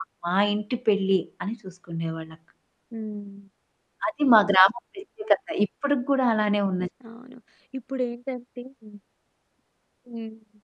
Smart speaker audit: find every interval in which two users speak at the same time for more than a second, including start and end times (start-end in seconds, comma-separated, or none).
none